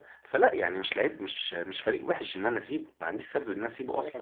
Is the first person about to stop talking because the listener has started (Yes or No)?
Yes